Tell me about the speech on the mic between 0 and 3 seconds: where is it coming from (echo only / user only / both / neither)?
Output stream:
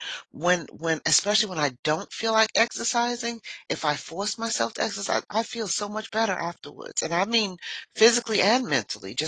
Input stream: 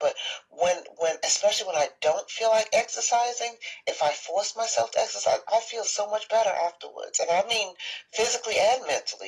echo only